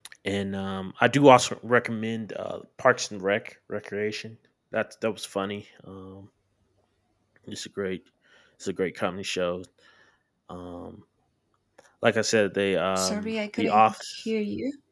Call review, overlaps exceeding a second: present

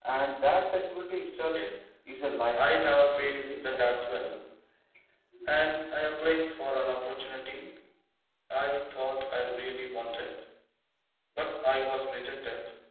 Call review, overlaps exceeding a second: present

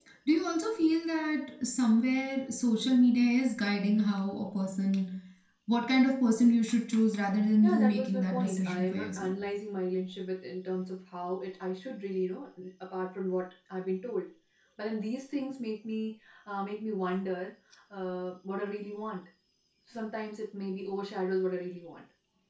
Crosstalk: present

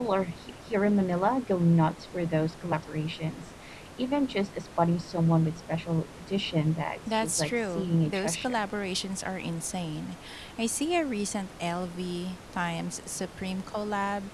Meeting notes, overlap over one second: present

